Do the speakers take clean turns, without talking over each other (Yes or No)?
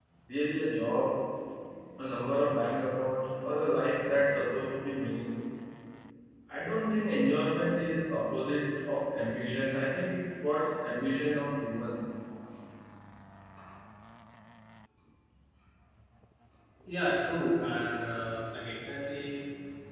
Yes